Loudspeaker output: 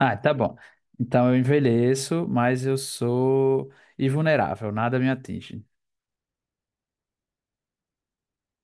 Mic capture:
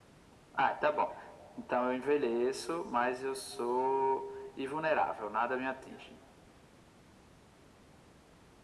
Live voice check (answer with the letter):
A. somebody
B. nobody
B